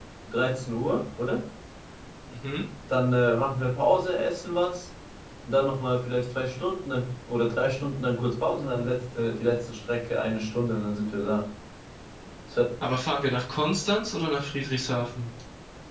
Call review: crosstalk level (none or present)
none